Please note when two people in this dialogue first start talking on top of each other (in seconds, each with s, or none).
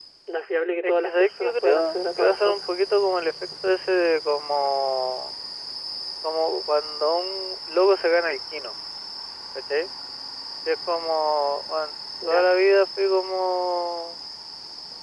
0.8 s